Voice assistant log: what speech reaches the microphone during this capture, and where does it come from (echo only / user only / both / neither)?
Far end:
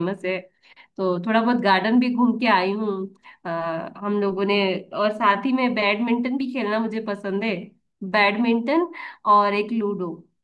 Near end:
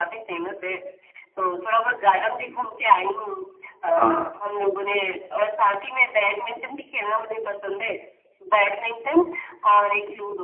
both